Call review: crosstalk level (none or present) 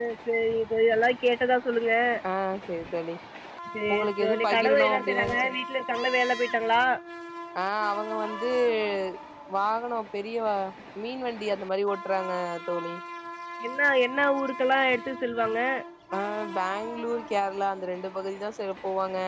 present